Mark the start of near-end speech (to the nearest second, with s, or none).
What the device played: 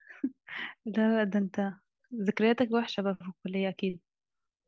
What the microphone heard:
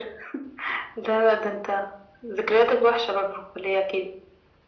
none